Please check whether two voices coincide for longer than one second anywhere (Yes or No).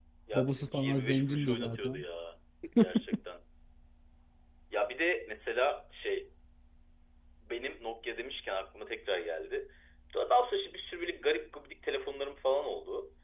Yes